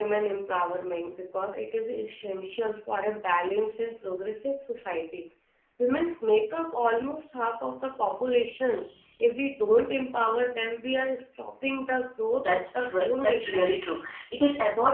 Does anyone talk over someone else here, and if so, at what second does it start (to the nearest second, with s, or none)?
12 s